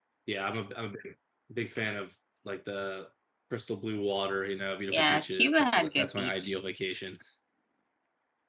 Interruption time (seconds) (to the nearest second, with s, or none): 5 s